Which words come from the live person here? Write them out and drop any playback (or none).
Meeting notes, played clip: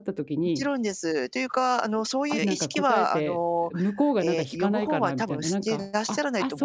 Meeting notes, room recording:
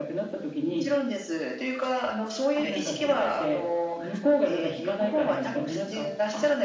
none